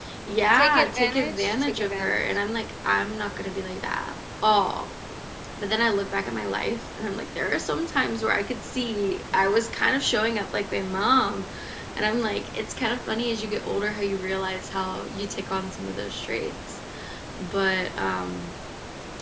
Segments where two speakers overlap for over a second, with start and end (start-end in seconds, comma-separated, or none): 0.5-2.2